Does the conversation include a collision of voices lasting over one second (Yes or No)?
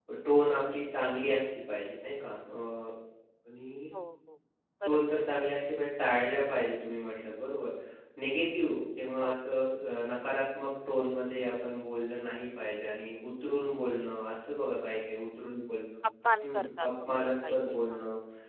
Yes